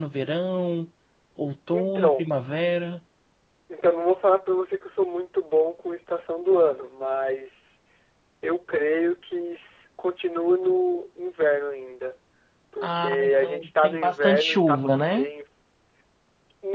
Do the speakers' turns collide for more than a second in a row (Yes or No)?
Yes